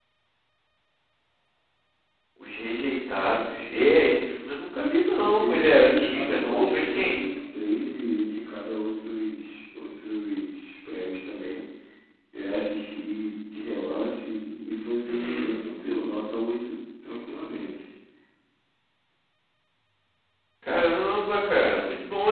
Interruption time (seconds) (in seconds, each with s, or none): 5.4 s